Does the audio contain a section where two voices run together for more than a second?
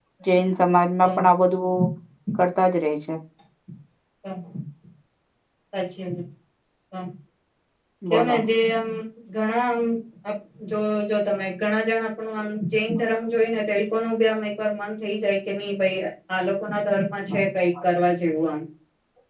No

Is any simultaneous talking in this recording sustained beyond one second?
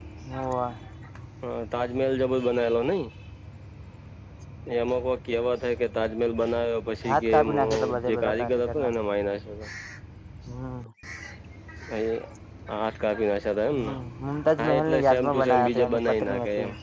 Yes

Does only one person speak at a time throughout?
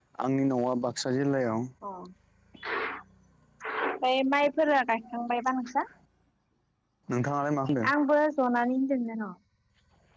Yes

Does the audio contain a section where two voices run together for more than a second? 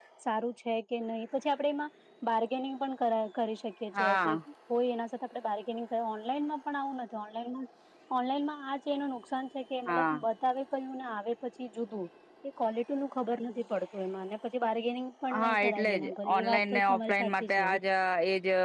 Yes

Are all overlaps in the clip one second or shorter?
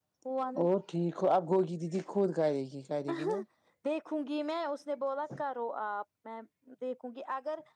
Yes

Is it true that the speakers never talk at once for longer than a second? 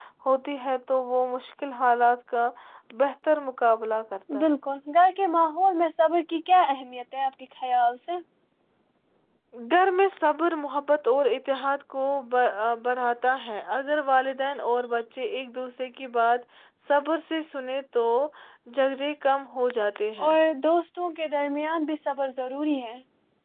Yes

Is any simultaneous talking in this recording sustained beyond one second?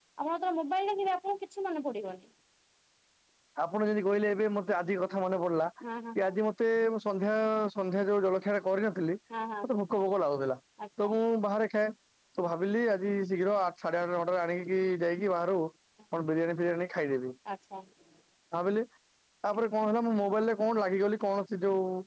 No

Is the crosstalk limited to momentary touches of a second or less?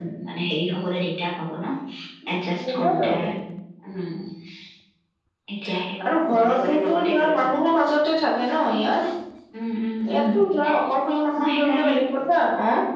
No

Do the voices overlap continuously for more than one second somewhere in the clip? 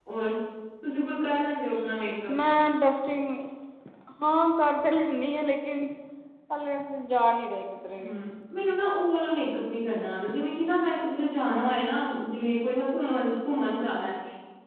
No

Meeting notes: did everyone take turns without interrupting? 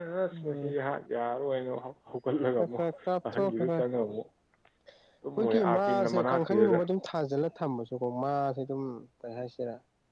No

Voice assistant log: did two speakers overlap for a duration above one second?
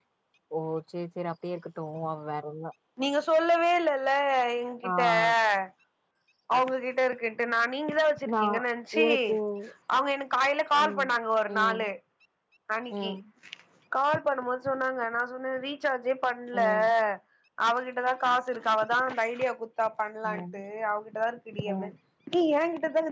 No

